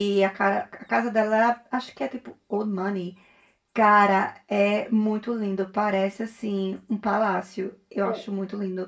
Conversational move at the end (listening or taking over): taking over